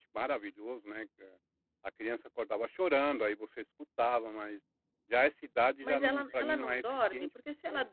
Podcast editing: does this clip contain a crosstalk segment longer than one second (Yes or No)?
Yes